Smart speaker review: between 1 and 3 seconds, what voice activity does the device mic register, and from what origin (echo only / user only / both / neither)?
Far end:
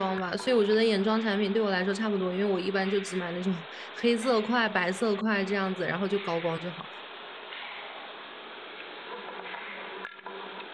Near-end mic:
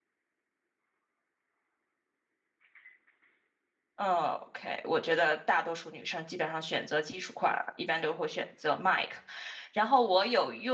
neither